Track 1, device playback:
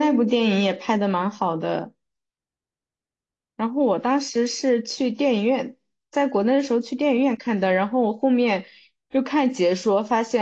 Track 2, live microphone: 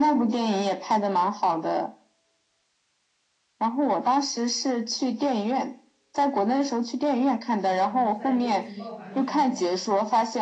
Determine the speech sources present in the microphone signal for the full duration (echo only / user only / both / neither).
both